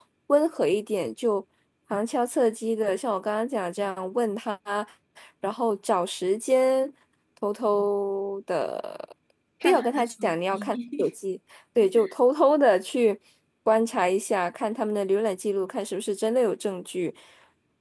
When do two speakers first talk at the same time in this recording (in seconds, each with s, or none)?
9.6 s